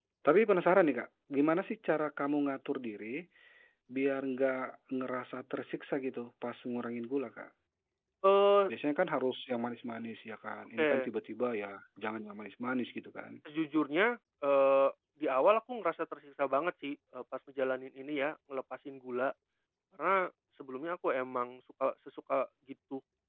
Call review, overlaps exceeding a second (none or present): none